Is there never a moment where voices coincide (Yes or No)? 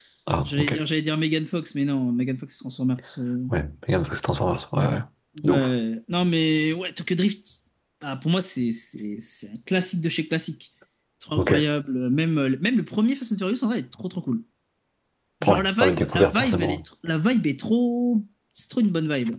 No